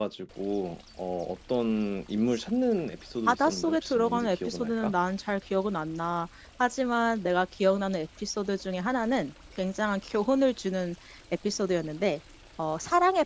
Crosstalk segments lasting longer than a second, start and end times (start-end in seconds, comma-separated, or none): 3.3-4.9